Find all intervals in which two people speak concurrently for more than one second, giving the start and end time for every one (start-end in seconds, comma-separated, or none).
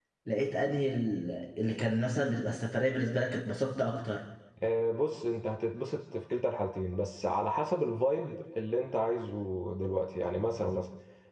none